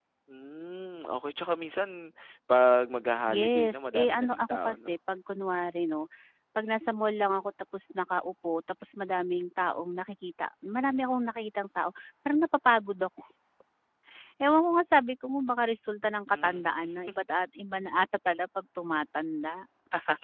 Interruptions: present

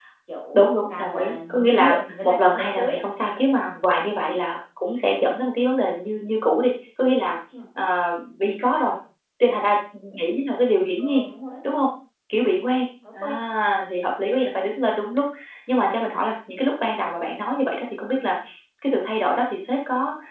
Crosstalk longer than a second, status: present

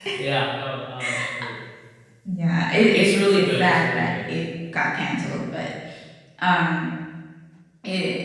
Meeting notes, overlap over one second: present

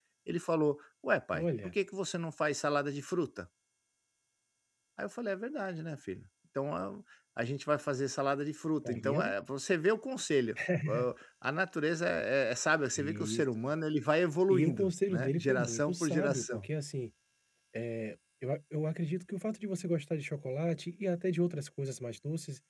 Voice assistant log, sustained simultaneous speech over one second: present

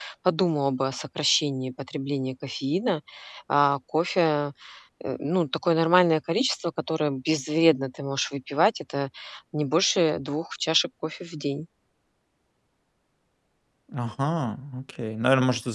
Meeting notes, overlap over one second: none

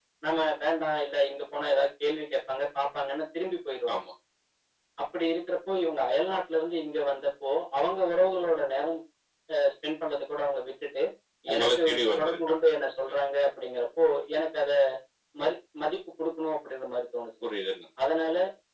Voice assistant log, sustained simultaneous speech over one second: none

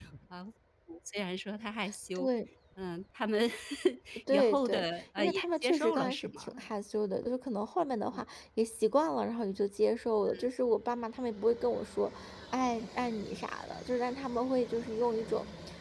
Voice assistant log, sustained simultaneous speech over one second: present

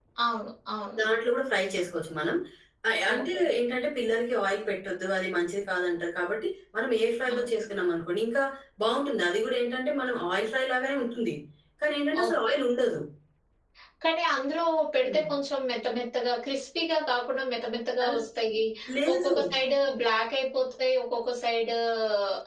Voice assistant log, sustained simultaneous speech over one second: none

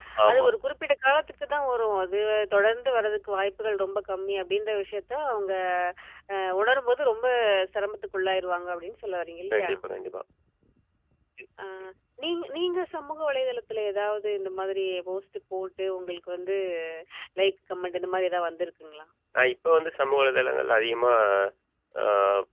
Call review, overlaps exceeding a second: none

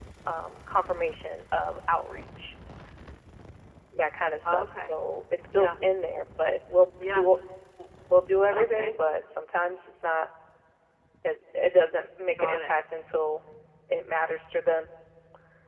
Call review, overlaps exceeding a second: none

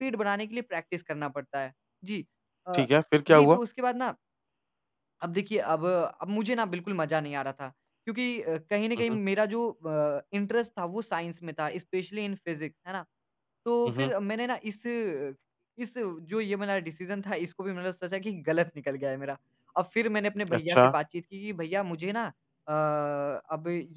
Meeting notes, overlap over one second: none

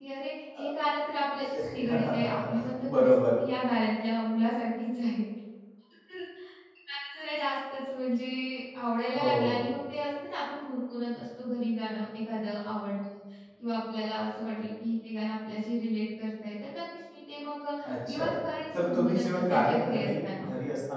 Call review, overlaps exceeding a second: present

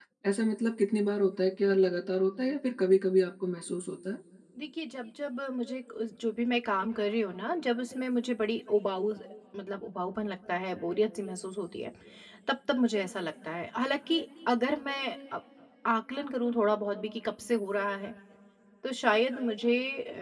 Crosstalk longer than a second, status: none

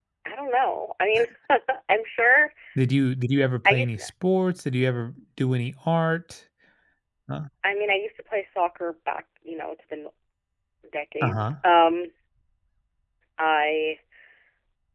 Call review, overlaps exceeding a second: none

